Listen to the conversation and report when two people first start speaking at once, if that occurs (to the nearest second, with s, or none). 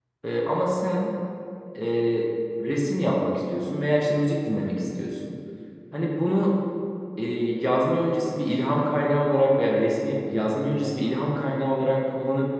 none